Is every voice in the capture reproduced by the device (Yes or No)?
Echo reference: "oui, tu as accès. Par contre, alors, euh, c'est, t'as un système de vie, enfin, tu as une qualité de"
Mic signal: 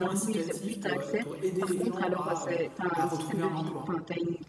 No